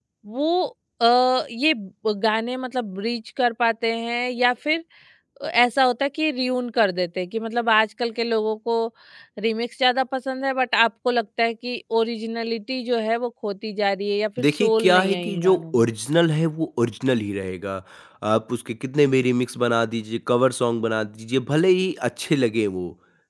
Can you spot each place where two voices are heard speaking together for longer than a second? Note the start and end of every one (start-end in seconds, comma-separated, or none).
14.4-15.8